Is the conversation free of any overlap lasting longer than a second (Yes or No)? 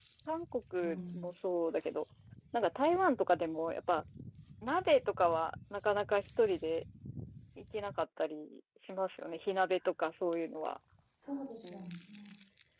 Yes